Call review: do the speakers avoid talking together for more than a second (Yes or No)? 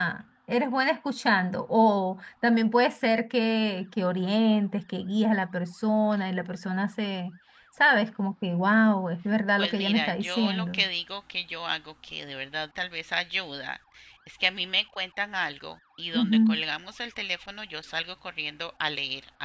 No